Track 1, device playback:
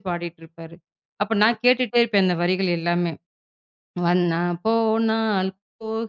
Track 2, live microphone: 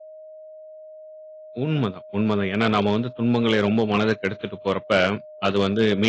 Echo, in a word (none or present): none